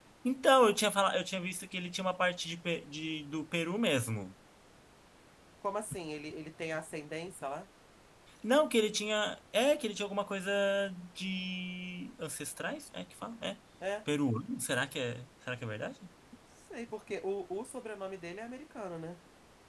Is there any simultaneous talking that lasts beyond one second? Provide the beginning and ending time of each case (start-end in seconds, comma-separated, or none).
none